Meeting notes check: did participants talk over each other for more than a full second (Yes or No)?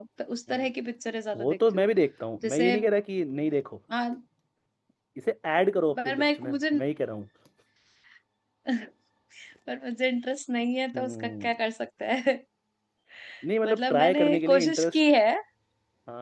Yes